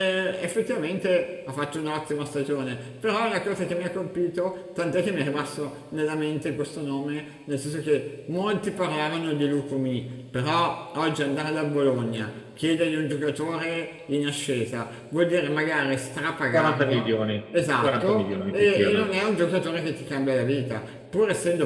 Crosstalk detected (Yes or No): Yes